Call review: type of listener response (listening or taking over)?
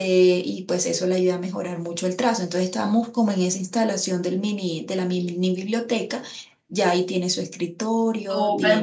taking over